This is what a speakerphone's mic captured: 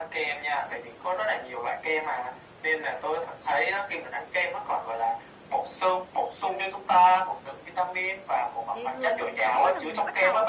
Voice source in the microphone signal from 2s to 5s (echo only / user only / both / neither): echo only